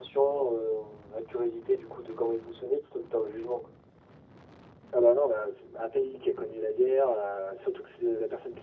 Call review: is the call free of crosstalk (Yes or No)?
Yes